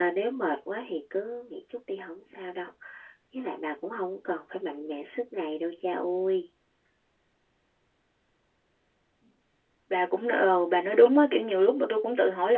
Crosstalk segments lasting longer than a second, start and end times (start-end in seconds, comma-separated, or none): none